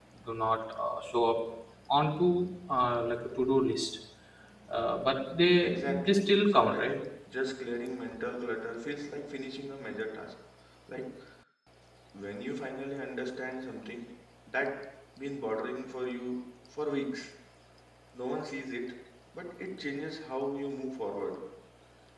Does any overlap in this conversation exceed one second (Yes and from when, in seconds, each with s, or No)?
Yes, from 5.6 s